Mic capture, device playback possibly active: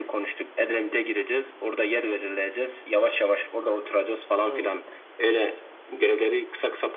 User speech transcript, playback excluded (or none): Hmm.